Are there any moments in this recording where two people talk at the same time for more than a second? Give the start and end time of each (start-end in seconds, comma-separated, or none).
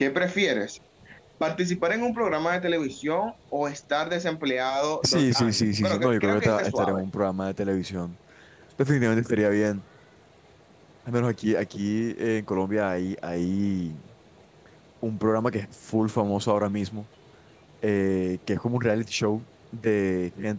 5.0-7.0